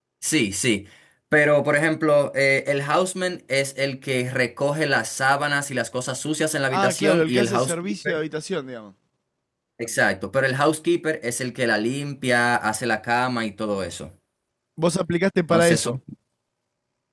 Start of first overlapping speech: 6.7 s

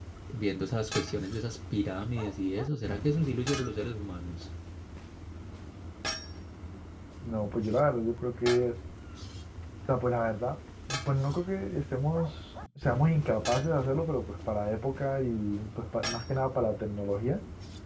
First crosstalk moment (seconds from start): none

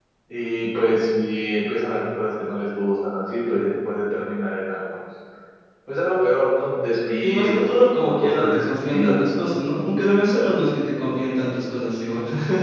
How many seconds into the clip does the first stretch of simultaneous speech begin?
7.2 s

